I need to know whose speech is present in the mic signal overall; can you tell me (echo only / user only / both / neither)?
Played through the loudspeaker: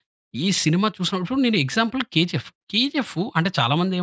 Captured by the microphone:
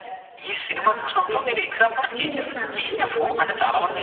both